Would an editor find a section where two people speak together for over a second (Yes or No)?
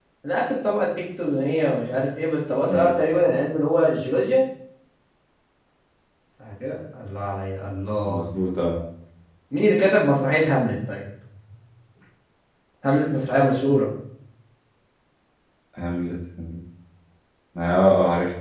No